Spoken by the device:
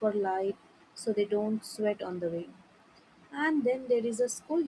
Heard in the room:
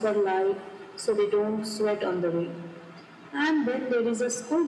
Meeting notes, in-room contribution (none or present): none